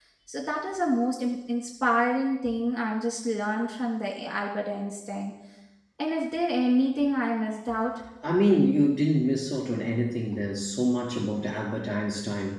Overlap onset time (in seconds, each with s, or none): none